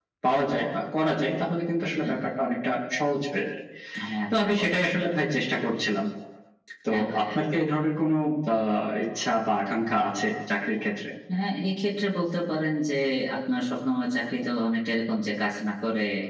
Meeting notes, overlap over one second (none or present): none